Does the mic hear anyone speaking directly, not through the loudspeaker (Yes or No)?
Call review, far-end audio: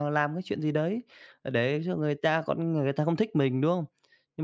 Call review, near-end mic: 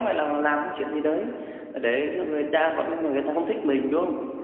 No